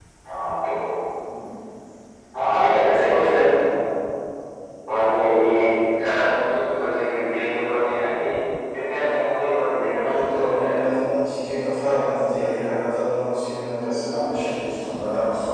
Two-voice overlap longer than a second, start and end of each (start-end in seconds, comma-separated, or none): 9.7-11.0